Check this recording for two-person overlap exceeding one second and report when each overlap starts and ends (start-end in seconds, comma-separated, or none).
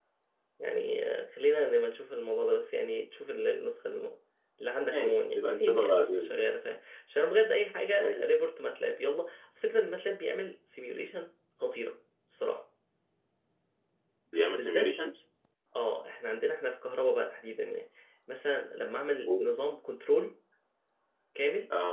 4.9-6.5